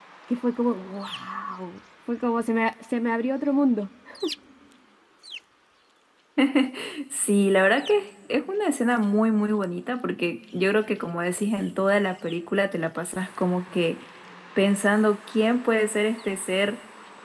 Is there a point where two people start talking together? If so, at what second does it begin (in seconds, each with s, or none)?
none